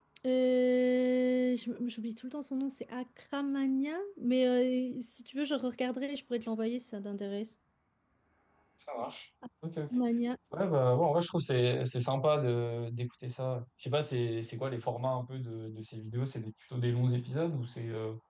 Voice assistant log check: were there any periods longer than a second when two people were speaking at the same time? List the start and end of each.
none

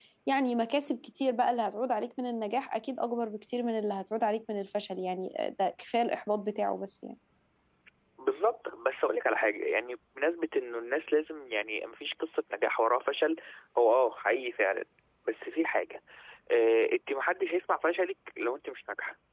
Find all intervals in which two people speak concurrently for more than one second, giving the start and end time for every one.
none

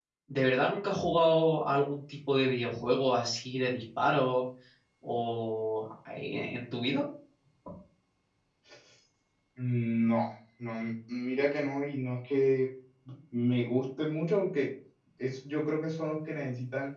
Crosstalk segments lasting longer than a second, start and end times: none

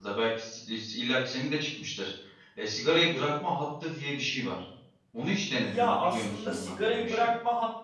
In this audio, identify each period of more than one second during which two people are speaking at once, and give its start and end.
5.6-7.3

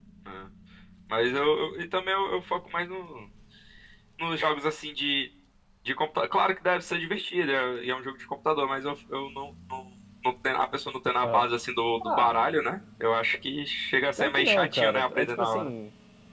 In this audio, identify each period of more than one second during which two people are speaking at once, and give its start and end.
14.2-15.7

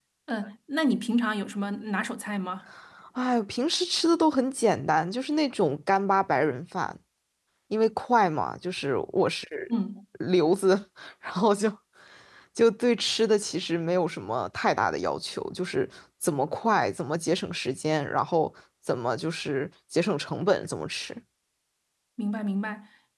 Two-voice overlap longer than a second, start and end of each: none

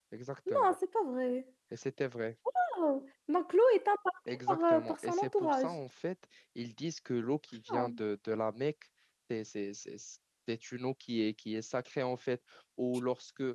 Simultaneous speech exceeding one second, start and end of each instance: 4.3-5.7

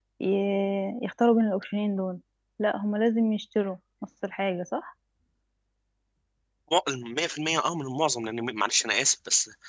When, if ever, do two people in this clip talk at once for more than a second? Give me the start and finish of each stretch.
none

